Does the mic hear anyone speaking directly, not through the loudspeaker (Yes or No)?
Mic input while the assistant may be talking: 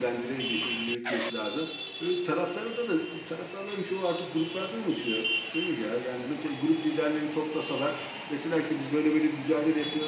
Yes